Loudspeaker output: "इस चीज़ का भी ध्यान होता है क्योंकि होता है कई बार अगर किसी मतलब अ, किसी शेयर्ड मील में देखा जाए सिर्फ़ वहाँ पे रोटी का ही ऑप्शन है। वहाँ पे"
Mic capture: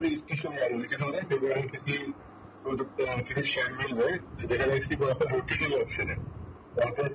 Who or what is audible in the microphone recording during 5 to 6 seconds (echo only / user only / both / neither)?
echo only